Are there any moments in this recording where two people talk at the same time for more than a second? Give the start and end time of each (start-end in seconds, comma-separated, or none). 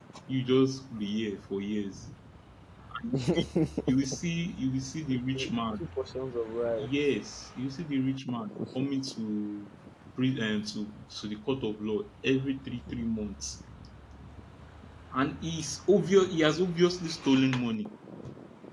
none